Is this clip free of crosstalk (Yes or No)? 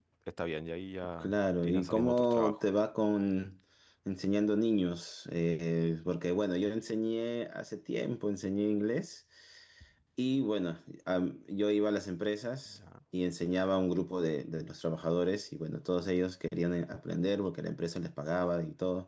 No